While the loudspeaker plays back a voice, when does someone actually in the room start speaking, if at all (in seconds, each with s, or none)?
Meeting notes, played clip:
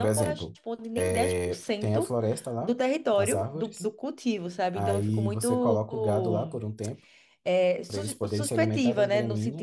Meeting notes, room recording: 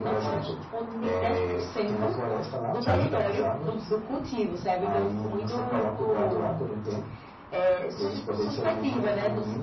2.8 s